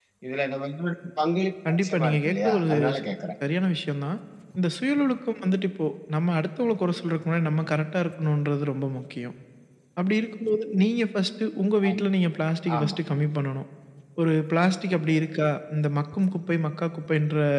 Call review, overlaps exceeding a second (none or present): present